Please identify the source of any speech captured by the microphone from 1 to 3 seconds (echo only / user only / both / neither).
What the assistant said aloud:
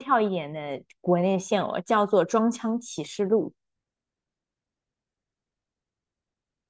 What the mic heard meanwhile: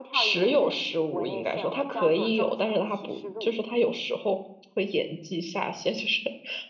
both